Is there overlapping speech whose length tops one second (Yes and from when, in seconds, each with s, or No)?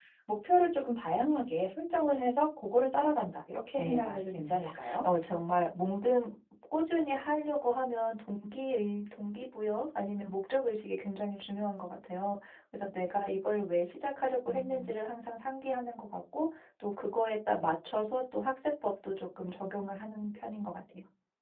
Yes, from 3.8 s